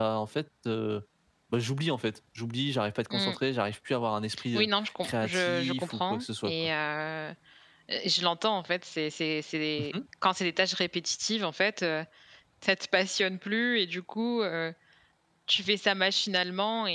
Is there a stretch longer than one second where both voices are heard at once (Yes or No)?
Yes